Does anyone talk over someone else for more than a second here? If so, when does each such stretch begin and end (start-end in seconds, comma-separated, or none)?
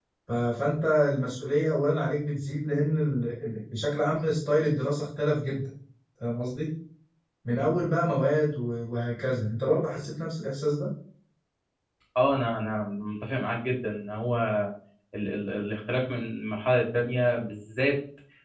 none